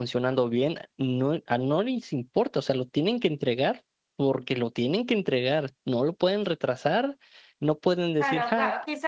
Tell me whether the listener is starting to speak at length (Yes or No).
Yes